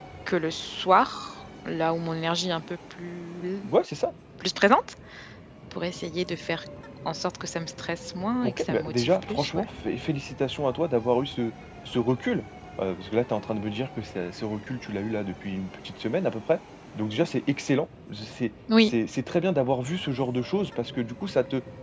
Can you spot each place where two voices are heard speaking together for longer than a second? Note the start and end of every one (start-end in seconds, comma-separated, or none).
8.4-9.6